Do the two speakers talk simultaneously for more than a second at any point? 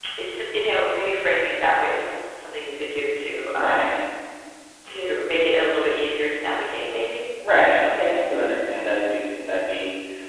No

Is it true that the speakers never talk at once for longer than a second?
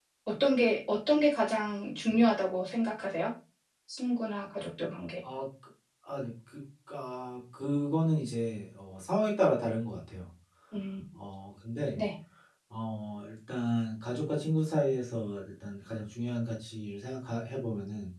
Yes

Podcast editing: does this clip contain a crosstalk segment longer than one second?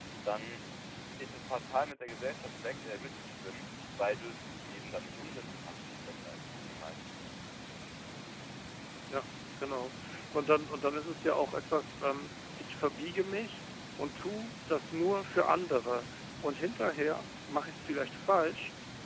No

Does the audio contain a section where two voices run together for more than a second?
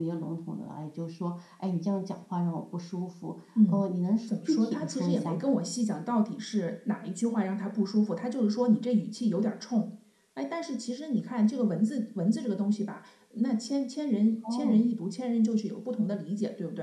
Yes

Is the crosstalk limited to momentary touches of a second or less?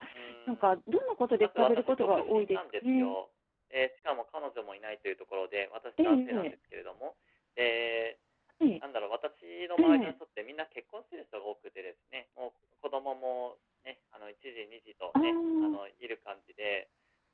No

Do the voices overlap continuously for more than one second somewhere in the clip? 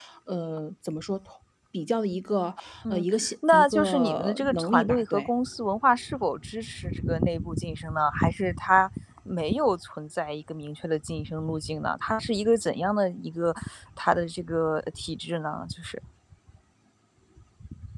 Yes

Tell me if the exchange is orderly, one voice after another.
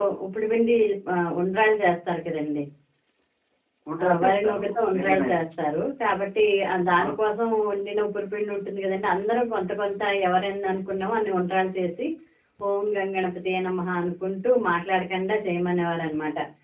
No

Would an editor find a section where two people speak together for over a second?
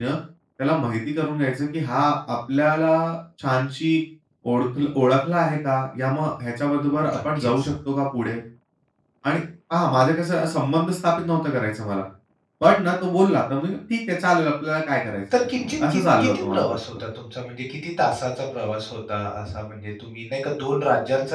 Yes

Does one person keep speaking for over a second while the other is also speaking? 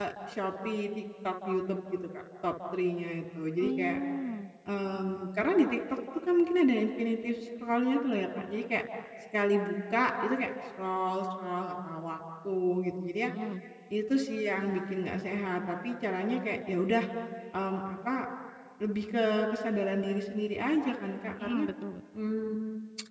No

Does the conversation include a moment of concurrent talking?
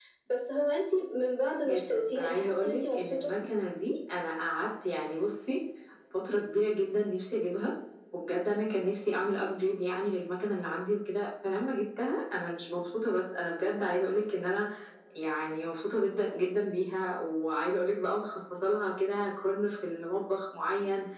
Yes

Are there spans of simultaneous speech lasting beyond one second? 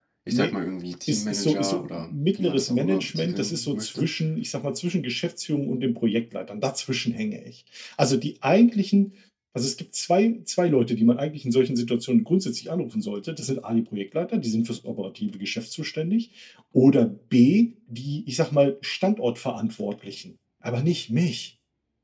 Yes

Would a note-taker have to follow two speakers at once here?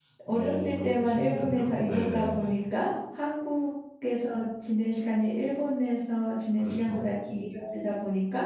Yes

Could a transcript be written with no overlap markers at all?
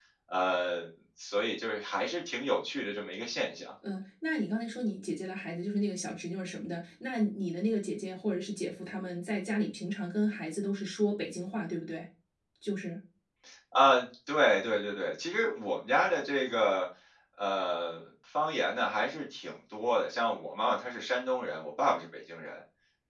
Yes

